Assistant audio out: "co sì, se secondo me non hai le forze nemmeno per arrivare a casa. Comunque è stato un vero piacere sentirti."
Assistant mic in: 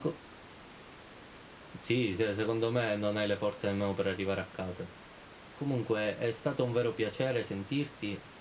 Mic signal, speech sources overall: echo only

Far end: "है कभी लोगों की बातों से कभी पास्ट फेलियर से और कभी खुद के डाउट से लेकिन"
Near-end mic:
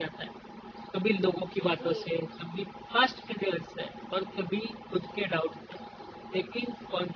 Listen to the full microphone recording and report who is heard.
both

